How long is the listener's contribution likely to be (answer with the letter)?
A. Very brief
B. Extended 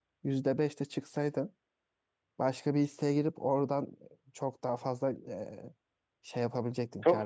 B